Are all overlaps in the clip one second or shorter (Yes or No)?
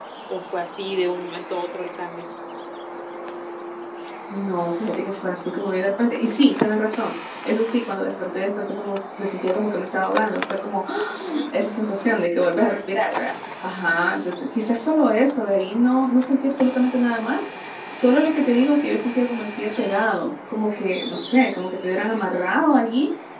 Yes